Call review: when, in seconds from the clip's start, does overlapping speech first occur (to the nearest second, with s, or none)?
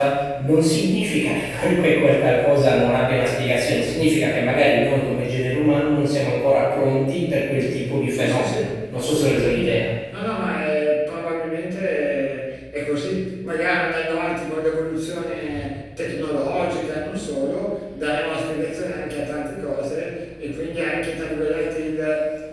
8 s